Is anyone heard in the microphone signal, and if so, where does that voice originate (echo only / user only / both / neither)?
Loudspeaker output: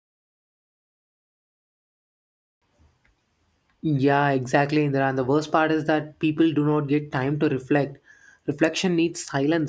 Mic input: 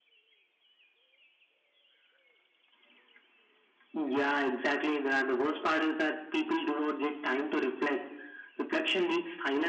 echo only